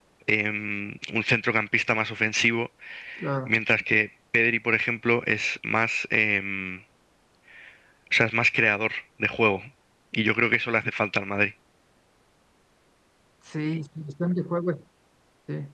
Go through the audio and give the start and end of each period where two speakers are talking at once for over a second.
none

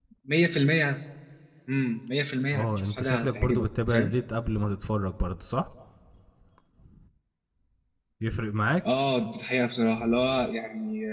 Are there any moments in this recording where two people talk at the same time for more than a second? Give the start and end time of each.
2.5-4.1

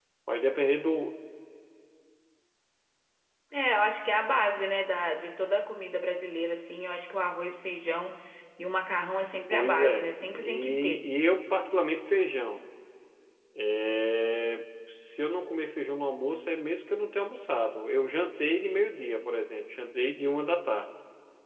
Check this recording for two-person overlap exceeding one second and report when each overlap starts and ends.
9.5-11.1

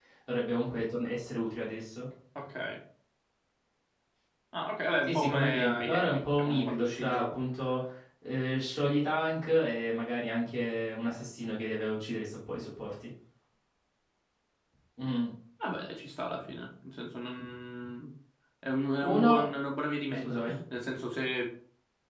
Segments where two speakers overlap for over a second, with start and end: 5.1-7.4

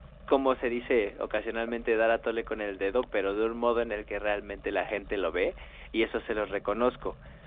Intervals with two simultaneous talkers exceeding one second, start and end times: none

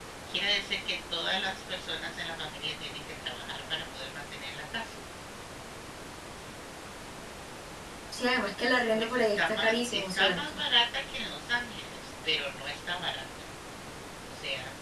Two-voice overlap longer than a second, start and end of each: 8.9-10.6

